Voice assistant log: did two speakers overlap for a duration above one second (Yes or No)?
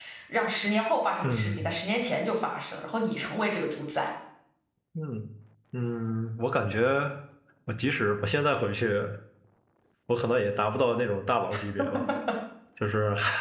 No